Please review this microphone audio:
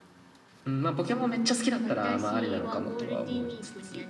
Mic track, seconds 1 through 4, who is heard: both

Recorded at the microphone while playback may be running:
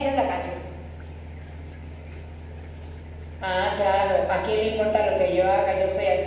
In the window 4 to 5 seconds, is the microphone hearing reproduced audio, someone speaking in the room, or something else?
echo only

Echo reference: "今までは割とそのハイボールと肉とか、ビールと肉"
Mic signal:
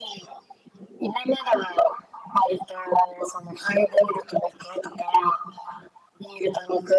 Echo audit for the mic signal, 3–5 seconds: echo only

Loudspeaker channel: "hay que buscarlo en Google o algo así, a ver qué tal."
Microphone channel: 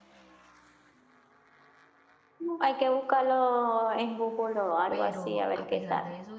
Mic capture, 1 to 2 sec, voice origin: neither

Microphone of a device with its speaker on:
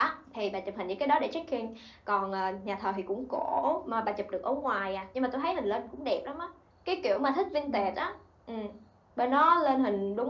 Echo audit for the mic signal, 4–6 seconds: echo only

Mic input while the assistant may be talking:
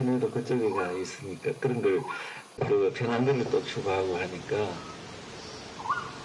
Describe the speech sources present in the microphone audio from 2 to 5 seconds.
echo only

